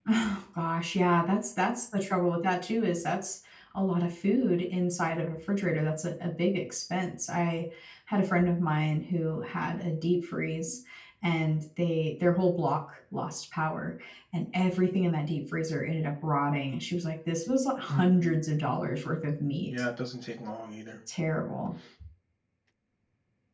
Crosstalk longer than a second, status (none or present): none